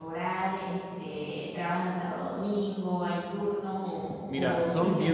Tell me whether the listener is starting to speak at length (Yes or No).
Yes